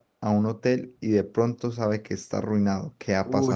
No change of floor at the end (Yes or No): No